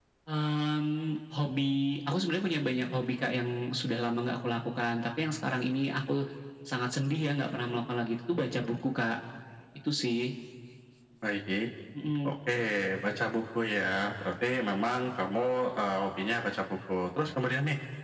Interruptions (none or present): none